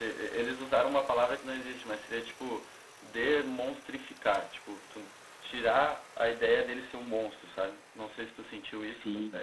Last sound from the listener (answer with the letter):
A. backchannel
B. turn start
B